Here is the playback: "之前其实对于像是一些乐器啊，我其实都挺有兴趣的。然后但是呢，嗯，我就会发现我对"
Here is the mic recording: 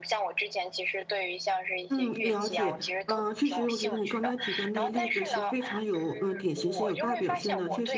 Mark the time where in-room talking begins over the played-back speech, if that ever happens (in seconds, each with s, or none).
1.9 s